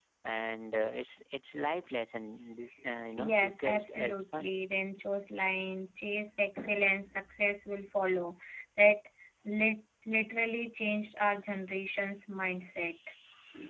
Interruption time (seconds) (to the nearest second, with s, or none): 3 s